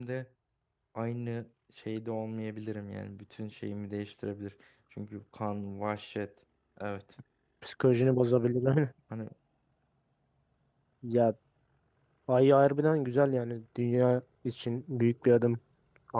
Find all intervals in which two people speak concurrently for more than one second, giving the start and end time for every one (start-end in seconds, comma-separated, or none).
none